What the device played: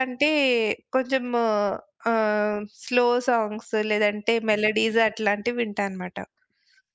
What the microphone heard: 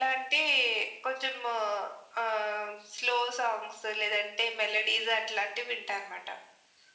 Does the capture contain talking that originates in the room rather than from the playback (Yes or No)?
No